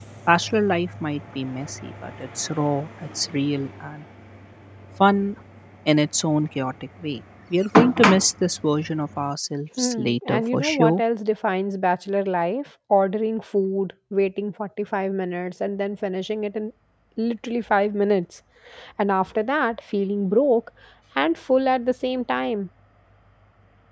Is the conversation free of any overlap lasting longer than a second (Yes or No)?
No